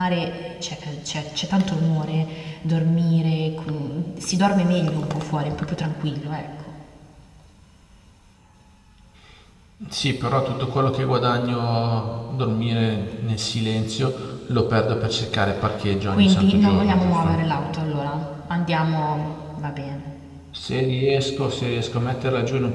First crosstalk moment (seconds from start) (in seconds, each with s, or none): 16.1 s